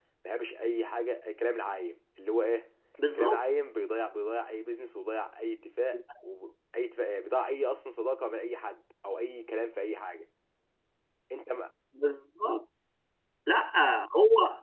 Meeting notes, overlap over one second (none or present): none